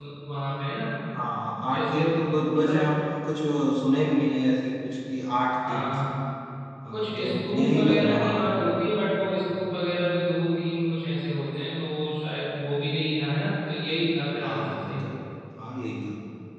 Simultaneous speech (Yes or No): Yes